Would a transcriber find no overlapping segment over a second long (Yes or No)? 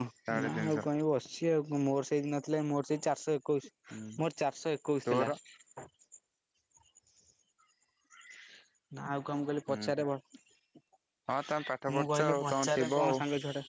No